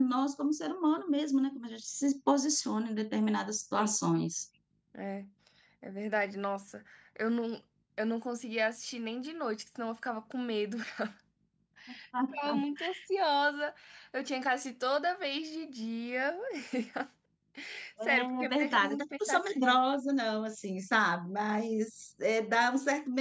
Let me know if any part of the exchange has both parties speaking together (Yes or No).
Yes